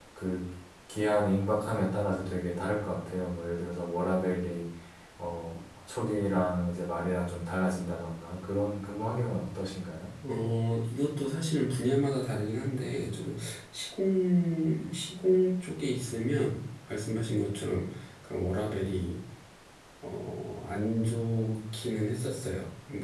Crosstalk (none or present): none